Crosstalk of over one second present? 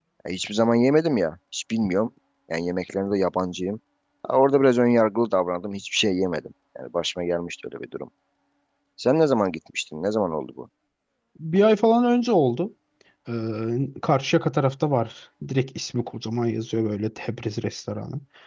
No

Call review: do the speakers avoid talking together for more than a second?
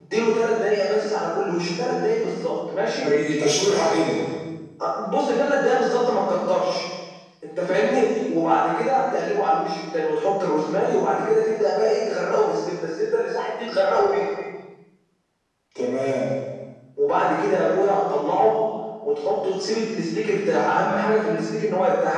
Yes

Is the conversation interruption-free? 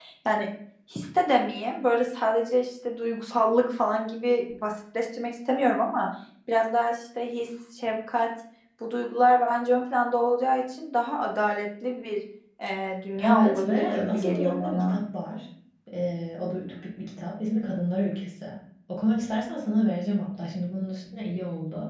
No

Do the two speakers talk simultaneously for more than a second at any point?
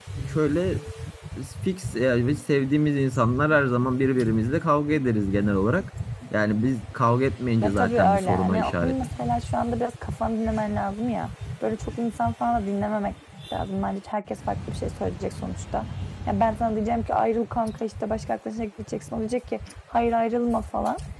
Yes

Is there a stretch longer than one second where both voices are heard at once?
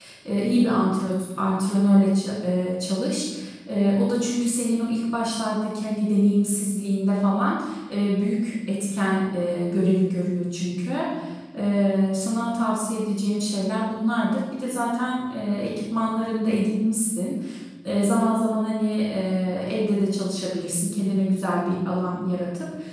No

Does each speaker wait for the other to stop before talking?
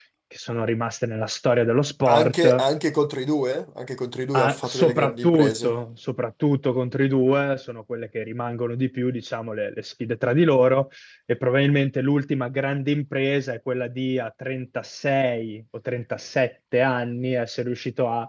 No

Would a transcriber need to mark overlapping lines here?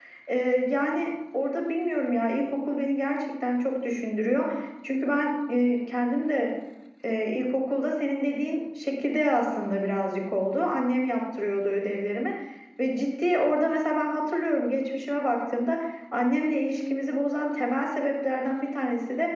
No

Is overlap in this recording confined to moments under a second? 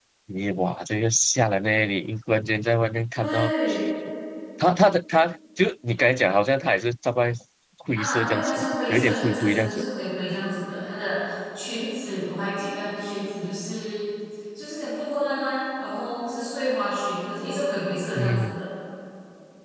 No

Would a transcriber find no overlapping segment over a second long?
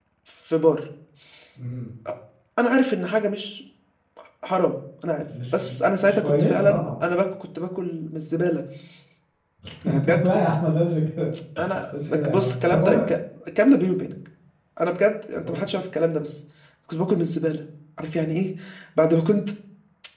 No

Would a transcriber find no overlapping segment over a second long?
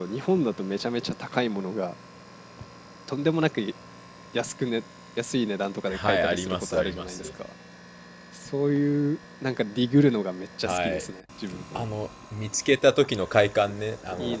No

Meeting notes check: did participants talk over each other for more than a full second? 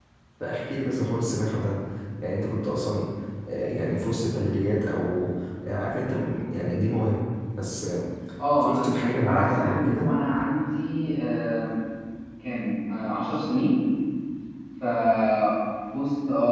Yes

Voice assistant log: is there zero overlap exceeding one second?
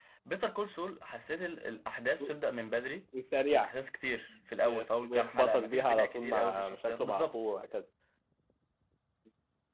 No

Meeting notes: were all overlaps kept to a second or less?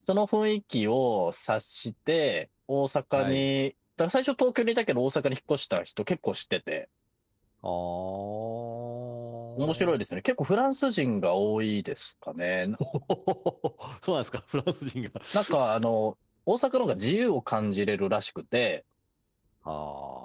Yes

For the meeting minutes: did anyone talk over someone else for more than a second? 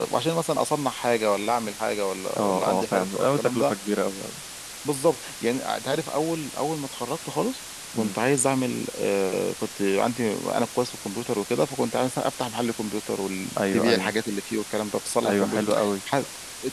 Yes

